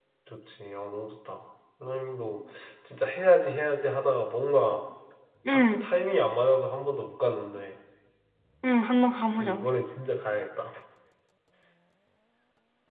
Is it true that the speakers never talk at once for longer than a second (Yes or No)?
Yes